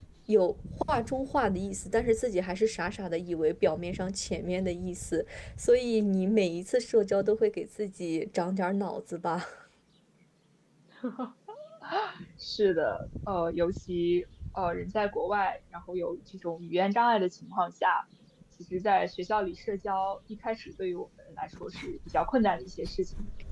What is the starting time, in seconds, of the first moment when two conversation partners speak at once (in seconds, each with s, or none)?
none